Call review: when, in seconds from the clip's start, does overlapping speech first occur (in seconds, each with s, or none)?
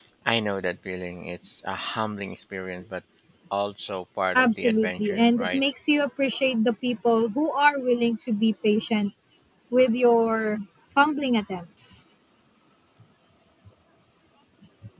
4.3 s